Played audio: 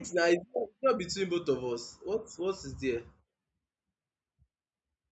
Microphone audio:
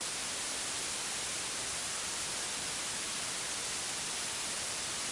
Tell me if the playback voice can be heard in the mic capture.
No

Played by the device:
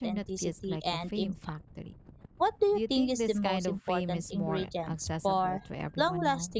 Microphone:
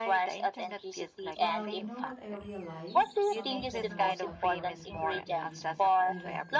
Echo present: Yes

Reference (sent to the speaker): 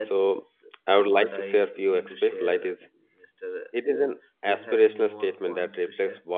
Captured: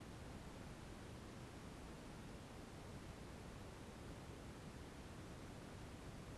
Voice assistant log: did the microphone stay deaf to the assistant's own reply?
Yes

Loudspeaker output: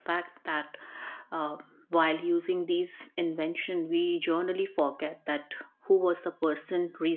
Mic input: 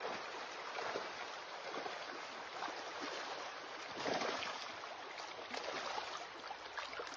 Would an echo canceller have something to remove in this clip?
No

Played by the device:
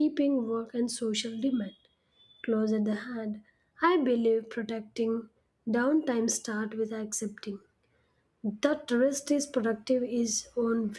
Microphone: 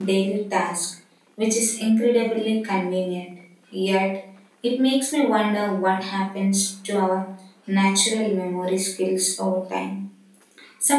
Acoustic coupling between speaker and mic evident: No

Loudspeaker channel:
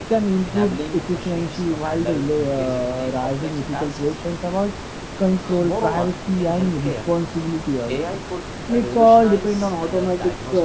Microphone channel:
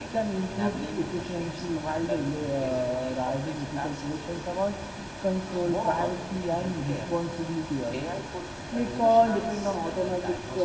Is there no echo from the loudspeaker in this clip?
No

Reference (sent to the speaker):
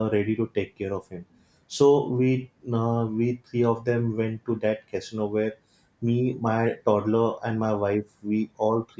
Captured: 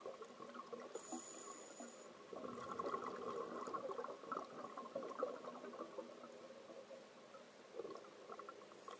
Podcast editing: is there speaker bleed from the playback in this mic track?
No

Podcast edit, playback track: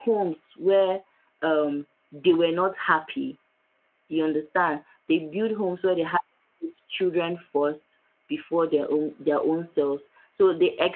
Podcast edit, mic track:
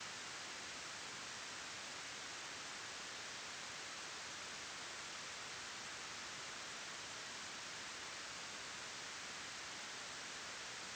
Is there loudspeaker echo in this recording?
No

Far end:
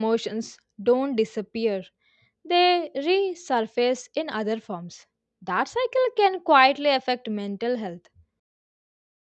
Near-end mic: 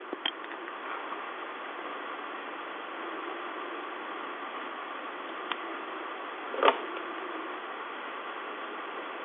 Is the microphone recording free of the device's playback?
Yes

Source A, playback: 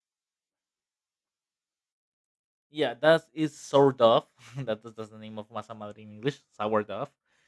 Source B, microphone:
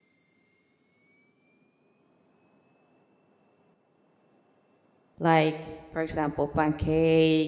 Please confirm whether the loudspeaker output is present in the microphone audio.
No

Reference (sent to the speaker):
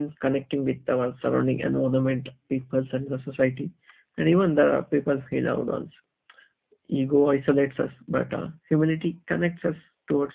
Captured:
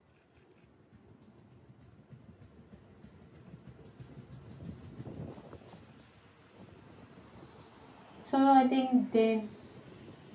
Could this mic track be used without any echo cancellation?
Yes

